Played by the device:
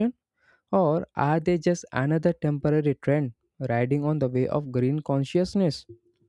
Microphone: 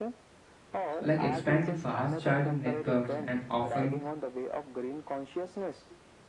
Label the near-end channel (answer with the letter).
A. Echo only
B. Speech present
B